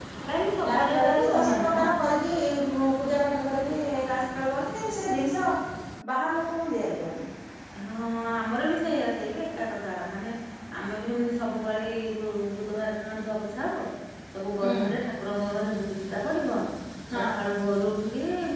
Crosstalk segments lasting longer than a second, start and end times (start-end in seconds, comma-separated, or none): 0.7-1.9